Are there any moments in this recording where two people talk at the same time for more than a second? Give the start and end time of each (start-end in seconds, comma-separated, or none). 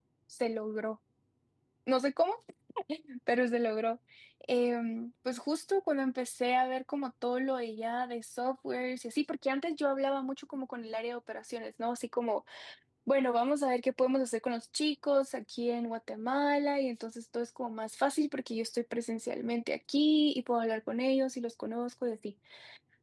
none